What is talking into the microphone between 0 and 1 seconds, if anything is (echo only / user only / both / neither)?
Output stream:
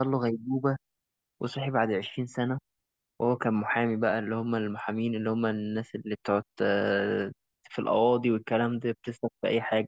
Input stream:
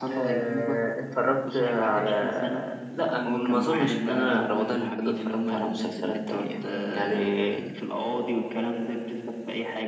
both